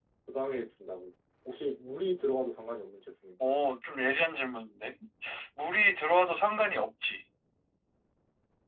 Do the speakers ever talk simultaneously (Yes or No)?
No